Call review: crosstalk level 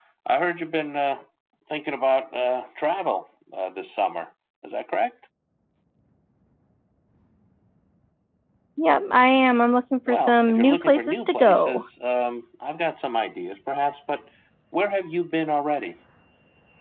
present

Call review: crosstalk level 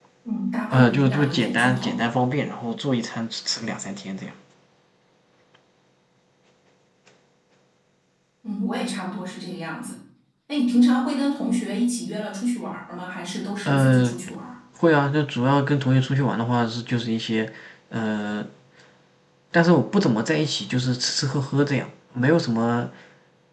present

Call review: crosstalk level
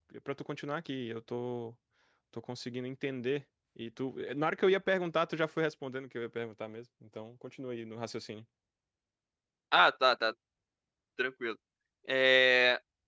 none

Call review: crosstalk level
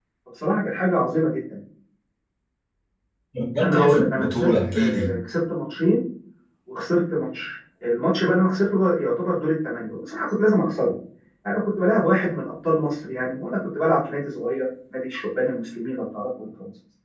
present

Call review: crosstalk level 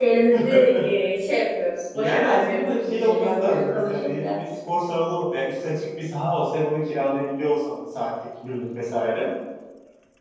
present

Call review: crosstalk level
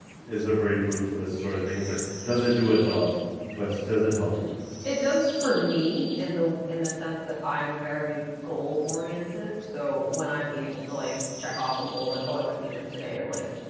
none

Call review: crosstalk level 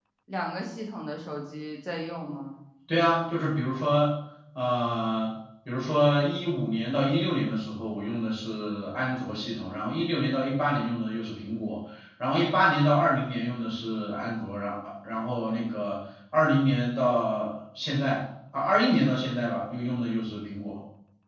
none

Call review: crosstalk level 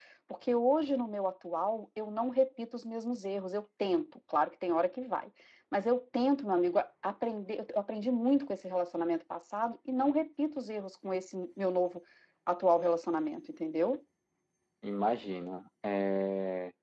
none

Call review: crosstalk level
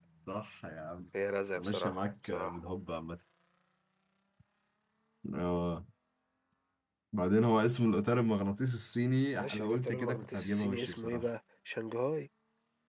present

